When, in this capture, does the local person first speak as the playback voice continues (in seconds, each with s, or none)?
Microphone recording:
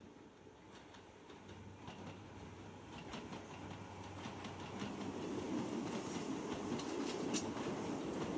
none